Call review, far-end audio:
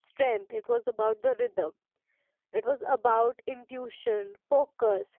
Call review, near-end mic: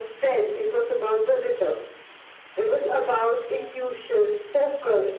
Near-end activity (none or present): none